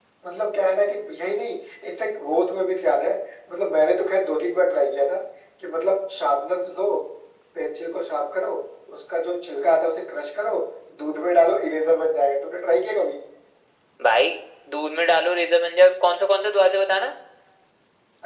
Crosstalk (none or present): none